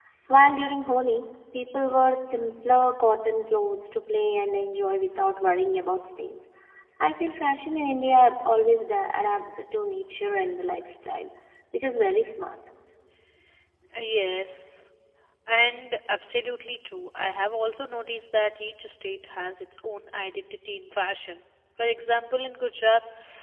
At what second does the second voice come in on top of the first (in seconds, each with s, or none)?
none